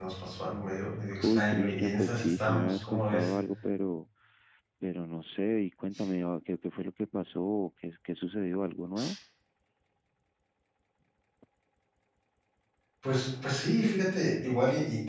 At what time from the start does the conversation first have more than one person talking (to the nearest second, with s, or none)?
1 s